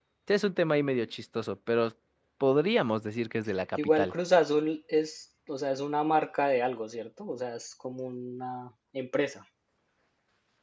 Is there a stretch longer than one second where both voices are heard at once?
No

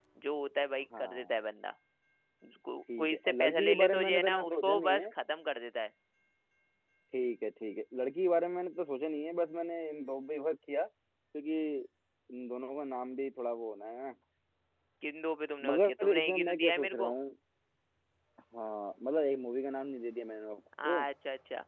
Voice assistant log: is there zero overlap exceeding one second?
No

